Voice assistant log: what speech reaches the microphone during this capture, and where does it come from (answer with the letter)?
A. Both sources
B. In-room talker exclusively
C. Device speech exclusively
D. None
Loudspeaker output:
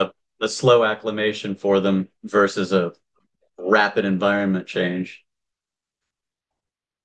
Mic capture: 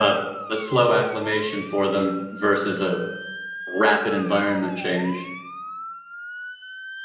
C